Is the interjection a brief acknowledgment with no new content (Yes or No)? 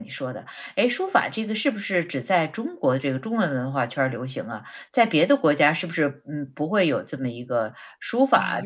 No